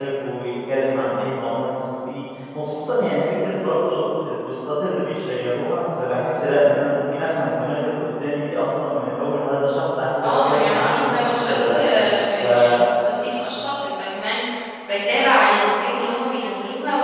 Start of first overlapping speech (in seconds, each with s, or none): 10.2 s